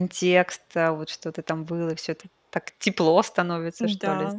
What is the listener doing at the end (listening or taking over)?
taking over